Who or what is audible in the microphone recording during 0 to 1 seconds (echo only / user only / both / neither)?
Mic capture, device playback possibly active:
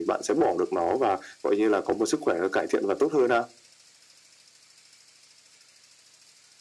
echo only